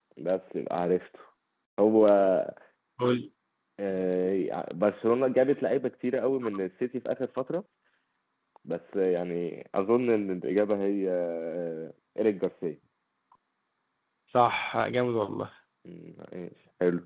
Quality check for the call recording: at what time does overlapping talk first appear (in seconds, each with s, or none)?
none